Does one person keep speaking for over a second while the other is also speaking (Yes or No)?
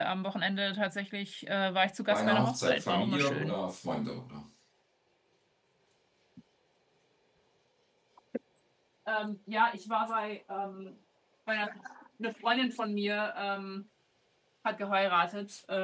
Yes